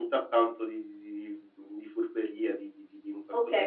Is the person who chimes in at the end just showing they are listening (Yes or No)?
No